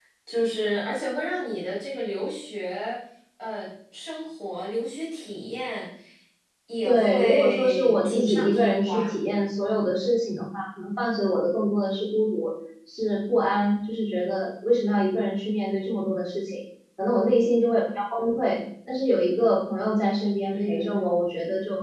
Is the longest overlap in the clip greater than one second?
Yes, from 6.8 s

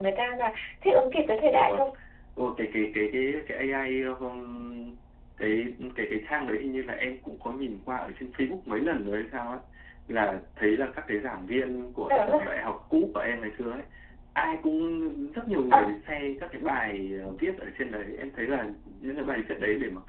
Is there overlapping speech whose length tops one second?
No

